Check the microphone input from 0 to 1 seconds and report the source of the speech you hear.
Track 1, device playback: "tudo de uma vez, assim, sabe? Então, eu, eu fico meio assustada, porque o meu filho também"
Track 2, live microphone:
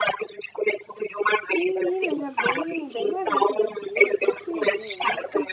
echo only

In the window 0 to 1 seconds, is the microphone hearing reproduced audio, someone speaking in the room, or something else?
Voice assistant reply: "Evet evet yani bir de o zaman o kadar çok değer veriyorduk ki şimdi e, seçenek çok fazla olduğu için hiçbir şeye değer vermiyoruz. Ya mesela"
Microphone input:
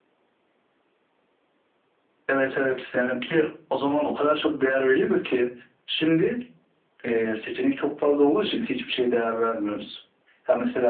neither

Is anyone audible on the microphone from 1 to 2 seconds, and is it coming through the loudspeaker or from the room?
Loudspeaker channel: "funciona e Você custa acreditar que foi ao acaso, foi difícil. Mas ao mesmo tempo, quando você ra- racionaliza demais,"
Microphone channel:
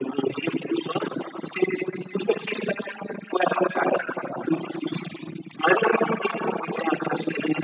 echo only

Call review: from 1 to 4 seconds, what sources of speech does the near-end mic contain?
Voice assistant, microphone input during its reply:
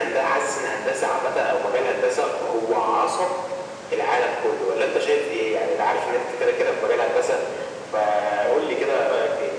echo only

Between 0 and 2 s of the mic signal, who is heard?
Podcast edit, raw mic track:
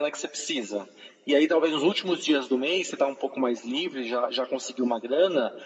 echo only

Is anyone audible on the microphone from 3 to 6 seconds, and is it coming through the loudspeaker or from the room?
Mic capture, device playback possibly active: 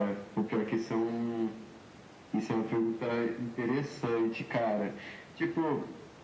echo only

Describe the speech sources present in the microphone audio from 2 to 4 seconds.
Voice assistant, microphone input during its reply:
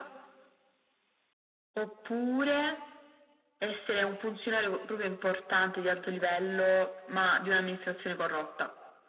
echo only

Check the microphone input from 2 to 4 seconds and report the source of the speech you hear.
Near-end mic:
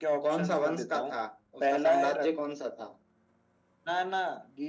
echo only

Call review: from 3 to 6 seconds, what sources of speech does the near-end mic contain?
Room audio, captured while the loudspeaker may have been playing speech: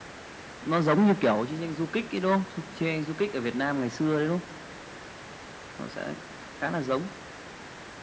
echo only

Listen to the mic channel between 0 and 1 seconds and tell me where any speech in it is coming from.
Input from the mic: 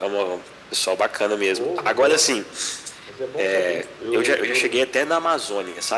echo only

